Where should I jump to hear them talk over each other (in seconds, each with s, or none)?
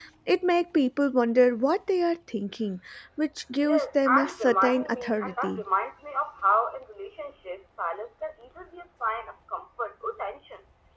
3.6 s